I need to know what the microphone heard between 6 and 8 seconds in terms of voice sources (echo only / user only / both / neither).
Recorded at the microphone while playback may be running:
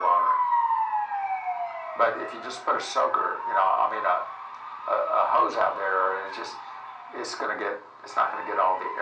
echo only